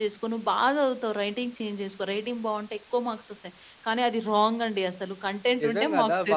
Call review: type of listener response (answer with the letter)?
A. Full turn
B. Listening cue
A